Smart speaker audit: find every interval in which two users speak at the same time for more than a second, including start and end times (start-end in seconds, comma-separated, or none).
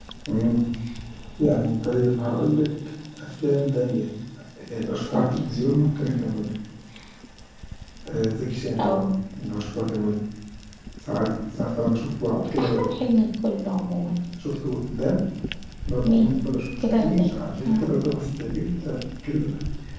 none